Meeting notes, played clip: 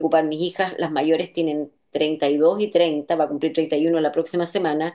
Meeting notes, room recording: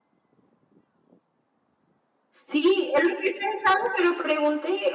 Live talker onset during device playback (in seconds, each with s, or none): 2.5 s